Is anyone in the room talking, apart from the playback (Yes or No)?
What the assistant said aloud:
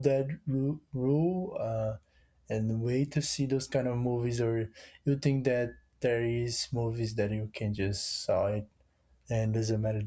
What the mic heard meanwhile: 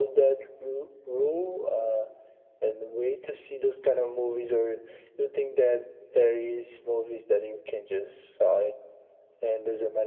No